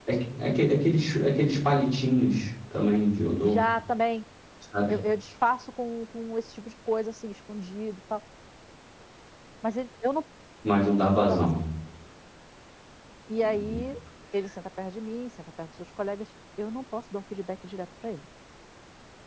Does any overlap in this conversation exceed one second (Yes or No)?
No